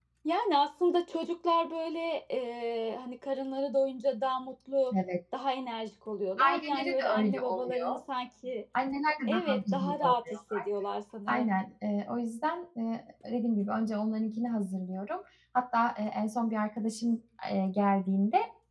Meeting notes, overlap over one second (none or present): present